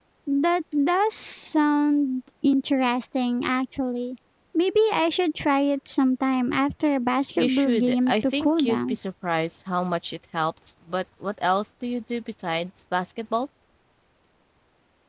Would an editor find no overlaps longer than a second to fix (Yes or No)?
No